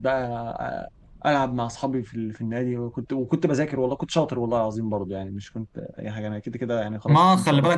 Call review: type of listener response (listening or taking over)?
taking over